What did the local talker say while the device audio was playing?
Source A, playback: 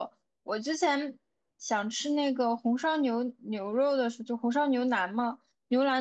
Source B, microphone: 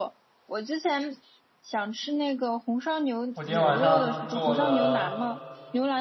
我今天晚上做了

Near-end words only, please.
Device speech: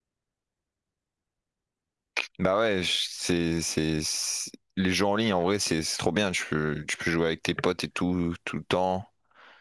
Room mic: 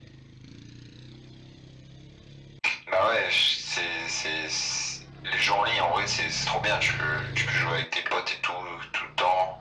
none

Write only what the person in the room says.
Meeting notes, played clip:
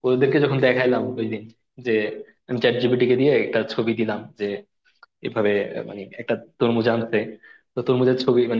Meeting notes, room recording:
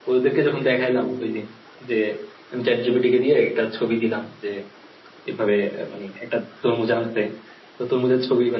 none

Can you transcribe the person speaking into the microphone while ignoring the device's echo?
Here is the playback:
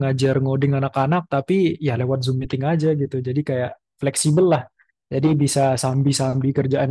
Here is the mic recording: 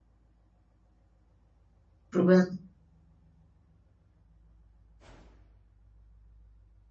Berubah.

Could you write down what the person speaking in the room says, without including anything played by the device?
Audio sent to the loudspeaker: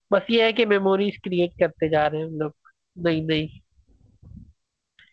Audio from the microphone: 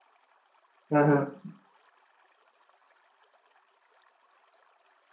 हाँ हाँ

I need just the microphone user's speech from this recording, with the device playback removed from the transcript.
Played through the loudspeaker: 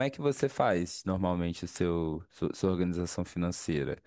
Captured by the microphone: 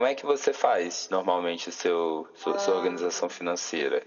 ah,

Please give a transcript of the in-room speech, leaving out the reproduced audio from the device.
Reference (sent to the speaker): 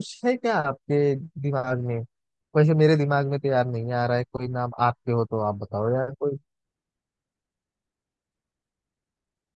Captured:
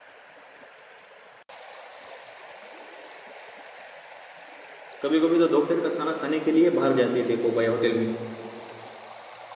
कभी कभी तो दोपहर का खाना खाने के लिए बाहर जाते हैं देखो भाई होटल में

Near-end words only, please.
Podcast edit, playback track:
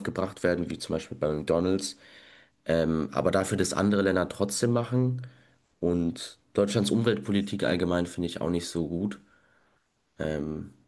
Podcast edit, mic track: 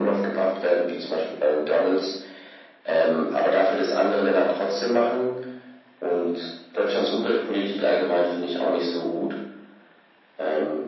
none

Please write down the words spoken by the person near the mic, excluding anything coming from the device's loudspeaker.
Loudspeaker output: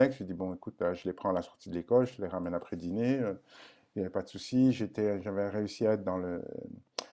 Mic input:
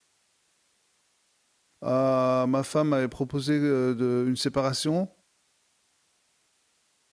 heu, ma femme m'avait proposé, heu, de une séparation.

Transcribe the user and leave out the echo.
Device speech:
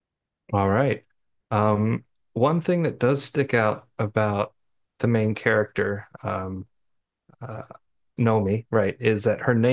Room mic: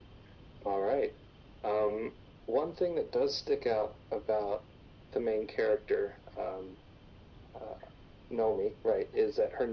none

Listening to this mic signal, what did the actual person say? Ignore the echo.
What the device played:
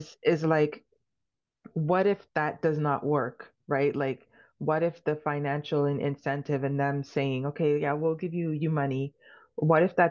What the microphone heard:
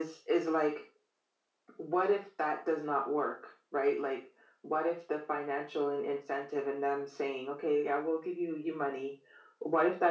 none

